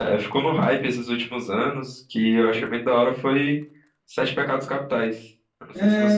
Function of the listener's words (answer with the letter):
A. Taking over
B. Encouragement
A